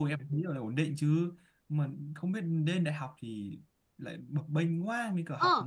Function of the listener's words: taking over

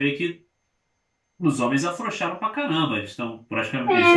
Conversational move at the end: taking over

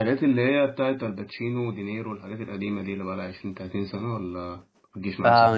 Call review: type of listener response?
taking over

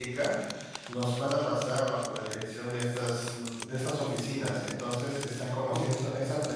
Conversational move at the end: listening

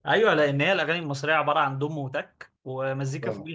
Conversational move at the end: listening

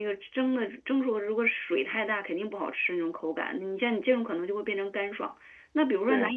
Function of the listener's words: listening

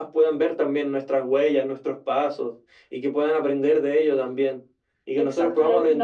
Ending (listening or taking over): taking over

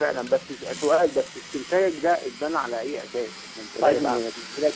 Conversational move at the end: listening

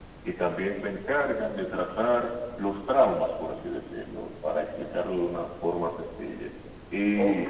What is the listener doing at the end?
taking over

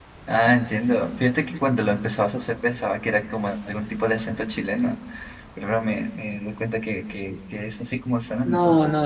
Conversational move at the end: taking over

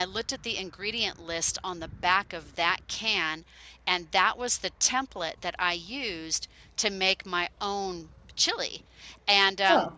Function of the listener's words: listening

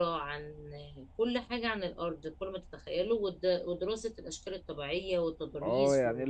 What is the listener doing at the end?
taking over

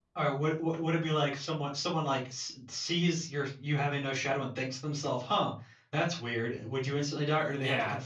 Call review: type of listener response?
taking over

